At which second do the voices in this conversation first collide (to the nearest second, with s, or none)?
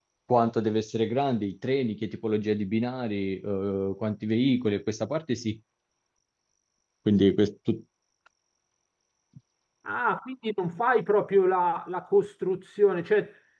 none